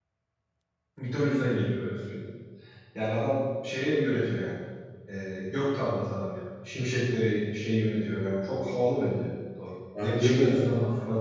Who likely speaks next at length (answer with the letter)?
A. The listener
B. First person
B